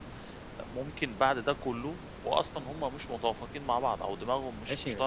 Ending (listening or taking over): taking over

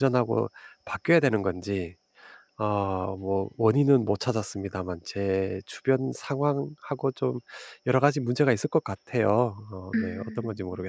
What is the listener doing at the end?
taking over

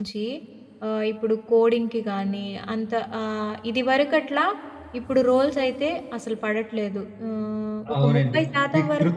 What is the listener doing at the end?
taking over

